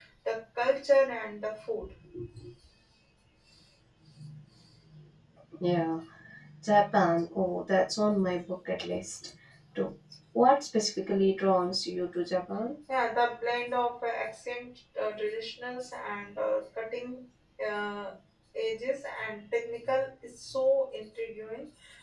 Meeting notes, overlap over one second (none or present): none